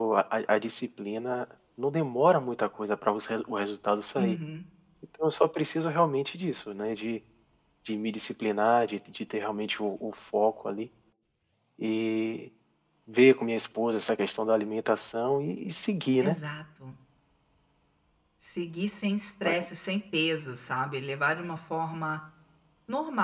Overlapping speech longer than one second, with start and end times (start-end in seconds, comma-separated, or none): none